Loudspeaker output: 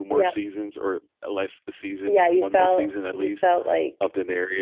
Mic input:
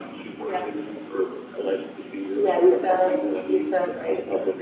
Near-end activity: none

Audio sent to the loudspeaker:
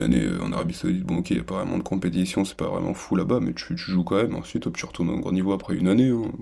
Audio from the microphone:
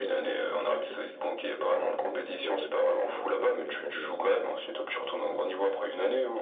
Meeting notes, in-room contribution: present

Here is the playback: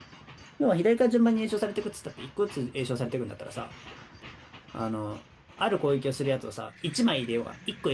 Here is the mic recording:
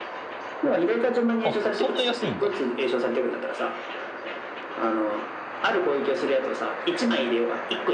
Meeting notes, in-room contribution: present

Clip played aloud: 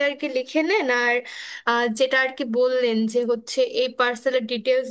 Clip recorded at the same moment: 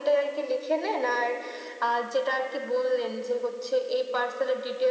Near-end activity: none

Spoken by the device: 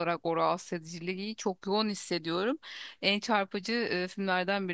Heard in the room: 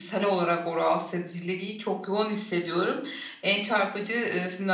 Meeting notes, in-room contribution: none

